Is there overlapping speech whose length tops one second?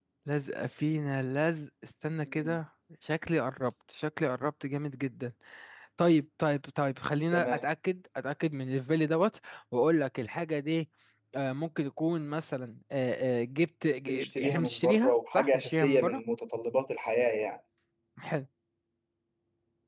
Yes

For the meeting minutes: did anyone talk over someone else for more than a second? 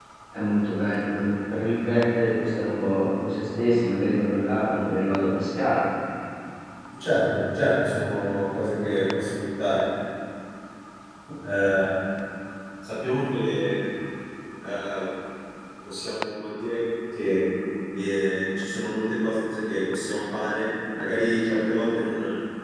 No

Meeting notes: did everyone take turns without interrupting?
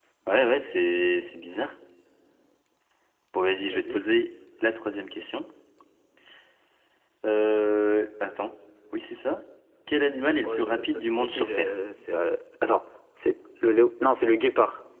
No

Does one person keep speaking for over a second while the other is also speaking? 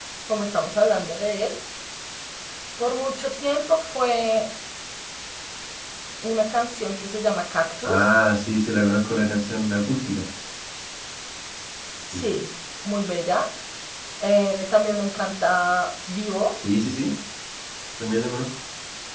No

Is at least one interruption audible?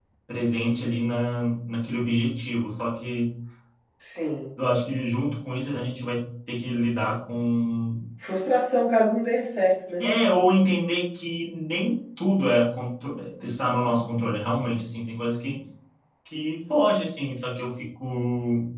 No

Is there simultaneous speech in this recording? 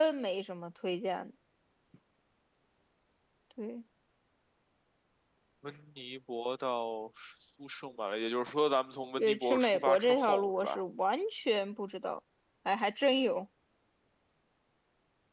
Yes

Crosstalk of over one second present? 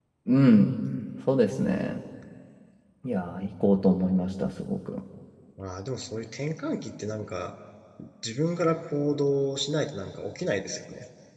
No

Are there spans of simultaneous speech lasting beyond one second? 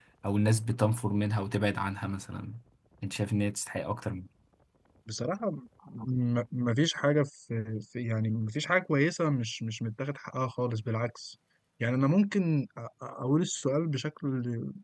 No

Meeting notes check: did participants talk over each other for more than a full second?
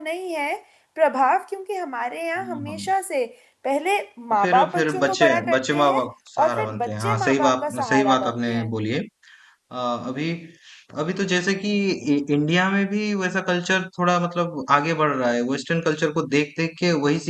Yes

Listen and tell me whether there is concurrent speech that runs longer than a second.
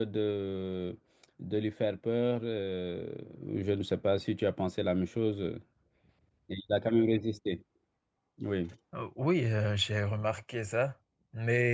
No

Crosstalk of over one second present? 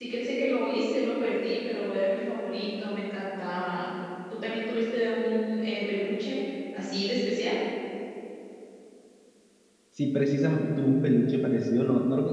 No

